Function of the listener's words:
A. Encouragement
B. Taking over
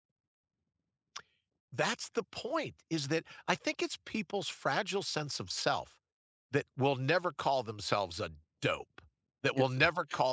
A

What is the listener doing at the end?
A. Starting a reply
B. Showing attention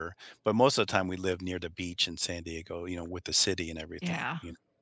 A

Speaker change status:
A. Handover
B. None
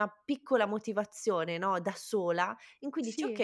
B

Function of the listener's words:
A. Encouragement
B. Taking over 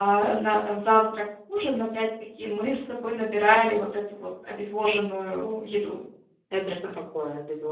B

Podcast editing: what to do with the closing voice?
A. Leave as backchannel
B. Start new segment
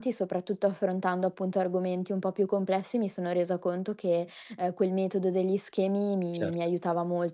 A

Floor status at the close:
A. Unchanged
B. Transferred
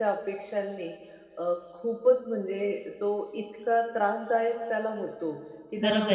A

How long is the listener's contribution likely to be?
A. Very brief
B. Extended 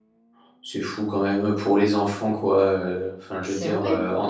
A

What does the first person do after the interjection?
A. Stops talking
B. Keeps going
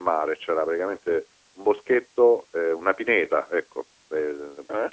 B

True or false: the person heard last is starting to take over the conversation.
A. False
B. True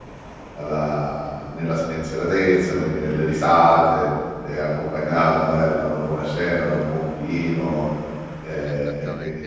B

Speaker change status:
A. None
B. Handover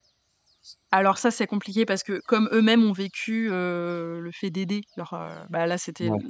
A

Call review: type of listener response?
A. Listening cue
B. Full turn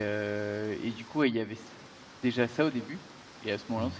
A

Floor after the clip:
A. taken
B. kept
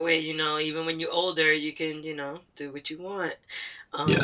A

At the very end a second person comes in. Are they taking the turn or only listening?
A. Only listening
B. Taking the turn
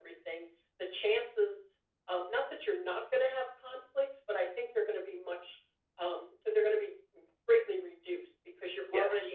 A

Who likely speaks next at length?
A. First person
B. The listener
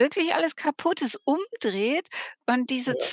A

